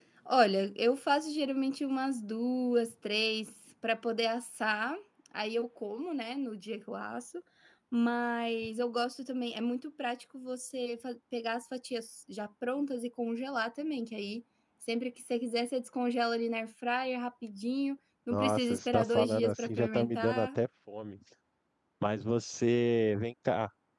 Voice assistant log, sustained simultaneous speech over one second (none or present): present